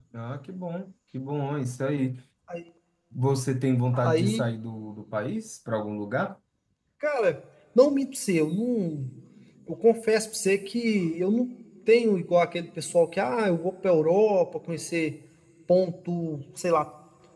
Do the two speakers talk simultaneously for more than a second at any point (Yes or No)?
No